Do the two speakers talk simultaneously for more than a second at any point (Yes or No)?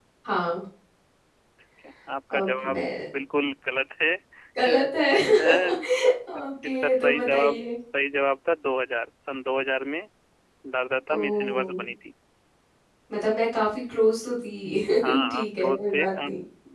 Yes